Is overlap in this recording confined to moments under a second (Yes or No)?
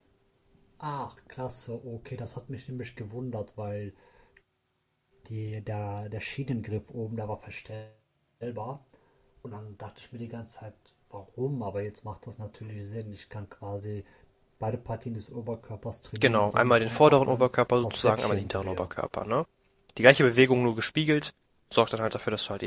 No